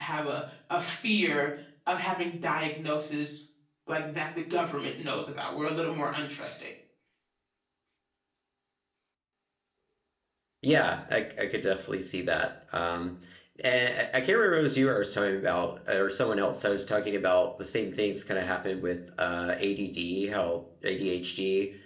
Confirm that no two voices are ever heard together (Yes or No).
Yes